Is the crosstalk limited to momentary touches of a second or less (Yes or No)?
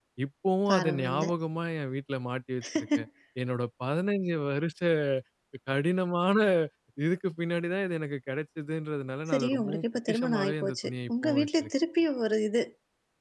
No